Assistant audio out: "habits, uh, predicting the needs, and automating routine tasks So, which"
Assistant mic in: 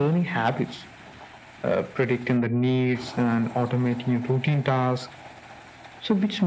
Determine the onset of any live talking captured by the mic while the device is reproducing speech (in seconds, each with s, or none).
none